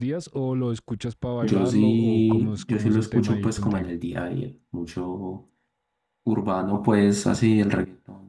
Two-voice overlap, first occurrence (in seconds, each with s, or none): 1.4 s